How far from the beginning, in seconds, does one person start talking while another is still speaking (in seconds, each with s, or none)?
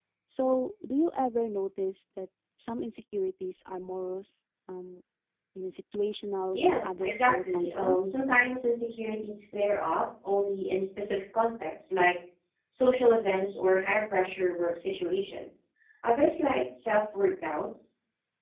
6.5 s